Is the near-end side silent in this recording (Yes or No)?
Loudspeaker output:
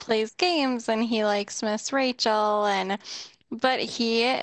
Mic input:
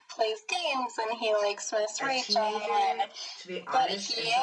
No